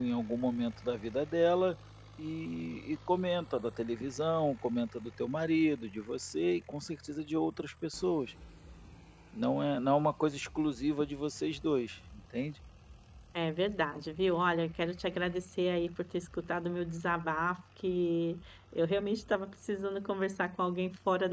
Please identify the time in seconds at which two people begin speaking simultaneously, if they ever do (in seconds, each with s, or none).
none